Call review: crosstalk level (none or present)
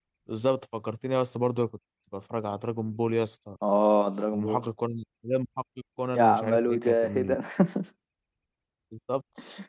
present